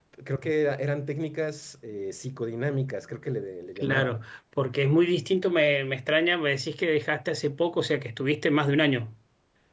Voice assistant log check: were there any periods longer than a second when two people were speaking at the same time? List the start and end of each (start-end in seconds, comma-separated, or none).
none